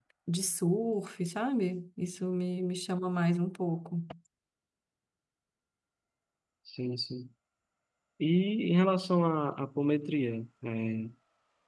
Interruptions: none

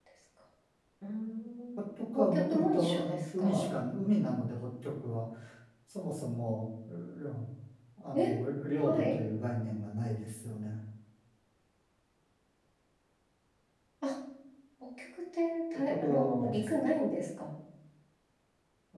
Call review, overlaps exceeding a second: present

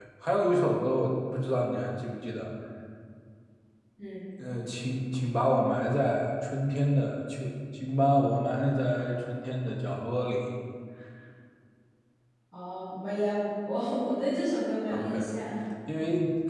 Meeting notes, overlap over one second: none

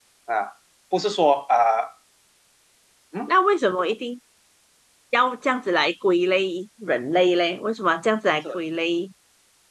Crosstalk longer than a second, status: none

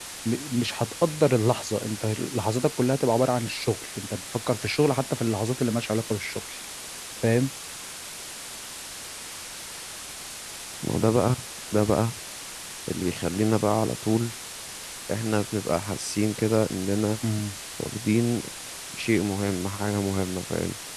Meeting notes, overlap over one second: none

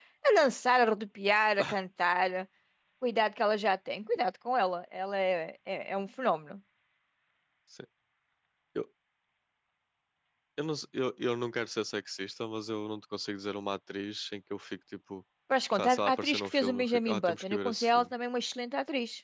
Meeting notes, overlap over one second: present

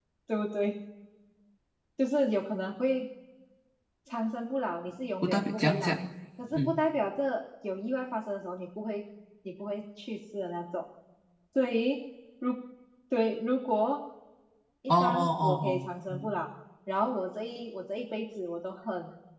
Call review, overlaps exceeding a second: present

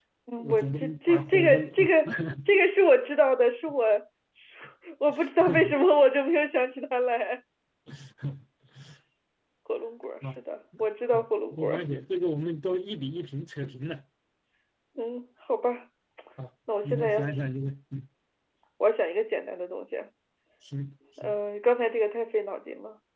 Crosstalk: present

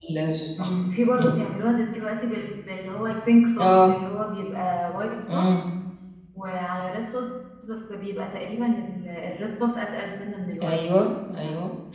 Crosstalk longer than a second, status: none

